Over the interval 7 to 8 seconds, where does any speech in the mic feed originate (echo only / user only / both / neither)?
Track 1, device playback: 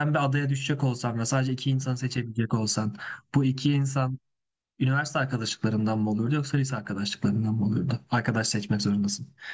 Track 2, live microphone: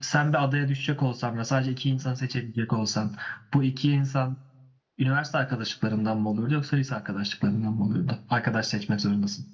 echo only